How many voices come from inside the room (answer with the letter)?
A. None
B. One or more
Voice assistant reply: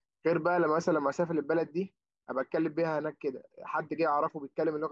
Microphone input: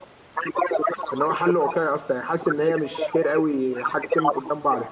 B